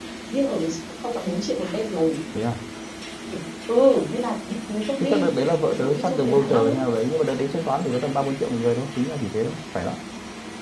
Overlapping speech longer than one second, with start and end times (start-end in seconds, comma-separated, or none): 5.0-6.8